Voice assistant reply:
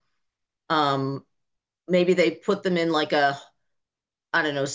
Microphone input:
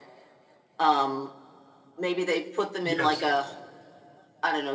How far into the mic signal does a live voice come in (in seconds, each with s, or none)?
2.8 s